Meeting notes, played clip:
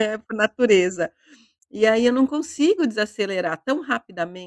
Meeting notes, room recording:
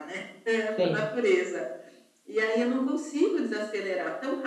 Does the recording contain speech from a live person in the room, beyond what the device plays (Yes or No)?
Yes